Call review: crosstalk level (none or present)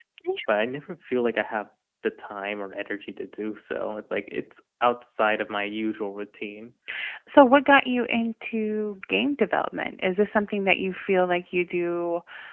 none